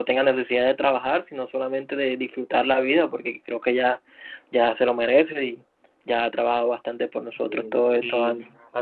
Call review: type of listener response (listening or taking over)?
taking over